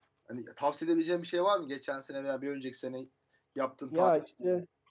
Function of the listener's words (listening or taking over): taking over